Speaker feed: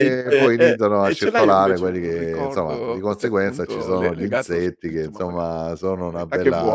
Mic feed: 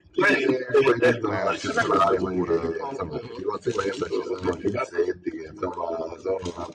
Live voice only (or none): persi nella natura